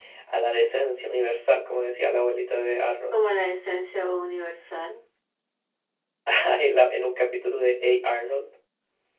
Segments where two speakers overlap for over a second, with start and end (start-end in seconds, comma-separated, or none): none